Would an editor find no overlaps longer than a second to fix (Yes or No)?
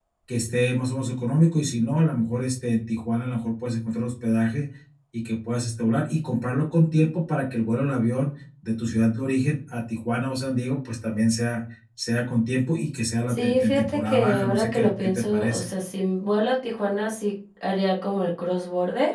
No